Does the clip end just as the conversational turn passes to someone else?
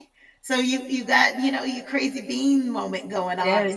Yes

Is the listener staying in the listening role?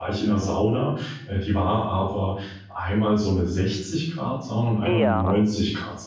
Yes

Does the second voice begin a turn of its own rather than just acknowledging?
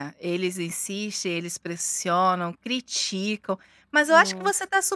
No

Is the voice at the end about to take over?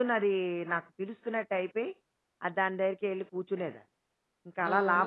Yes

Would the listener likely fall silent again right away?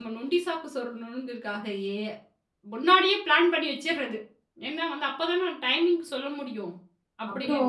No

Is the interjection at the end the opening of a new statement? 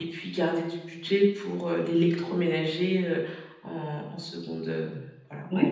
Yes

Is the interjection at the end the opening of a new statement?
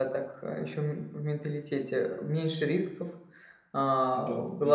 No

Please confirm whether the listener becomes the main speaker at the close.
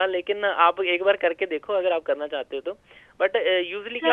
Yes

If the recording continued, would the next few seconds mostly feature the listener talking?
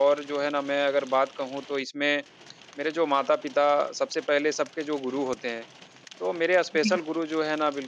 No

